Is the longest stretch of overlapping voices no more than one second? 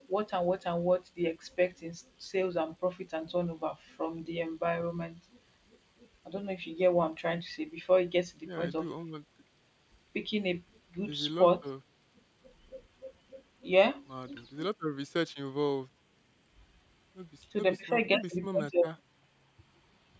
No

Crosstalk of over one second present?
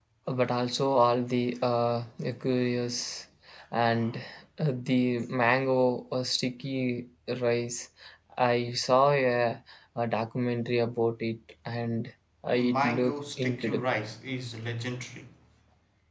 Yes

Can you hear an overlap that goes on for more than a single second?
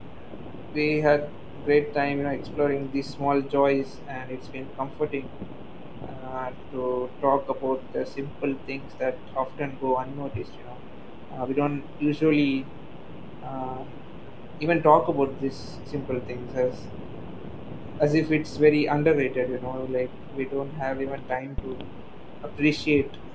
No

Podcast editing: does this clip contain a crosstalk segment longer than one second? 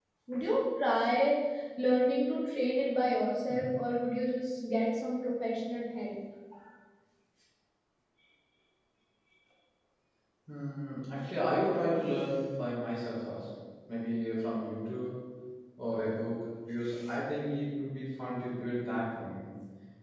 No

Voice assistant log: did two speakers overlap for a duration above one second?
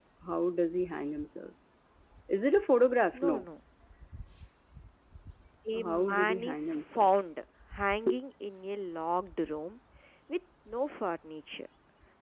Yes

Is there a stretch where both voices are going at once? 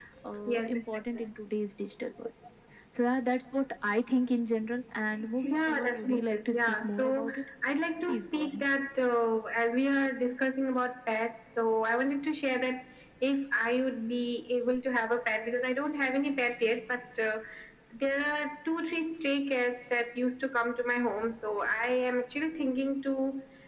Yes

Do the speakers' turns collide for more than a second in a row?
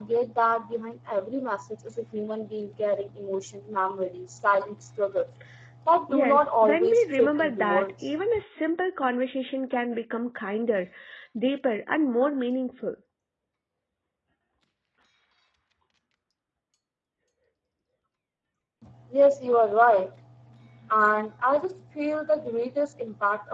Yes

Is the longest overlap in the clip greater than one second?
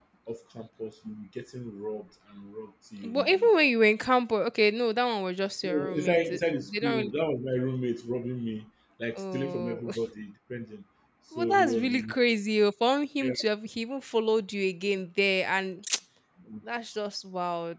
Yes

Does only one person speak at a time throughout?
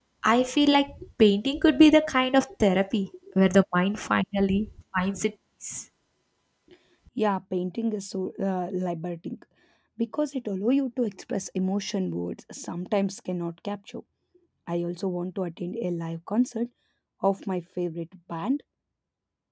Yes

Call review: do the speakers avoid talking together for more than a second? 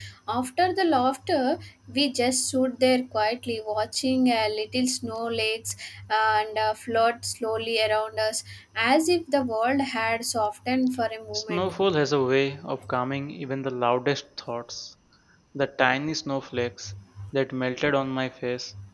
Yes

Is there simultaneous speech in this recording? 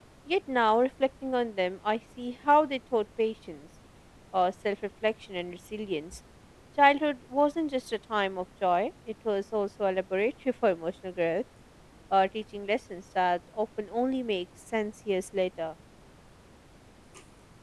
No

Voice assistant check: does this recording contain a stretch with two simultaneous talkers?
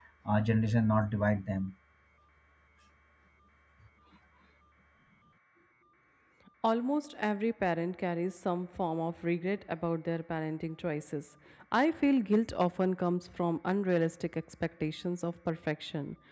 No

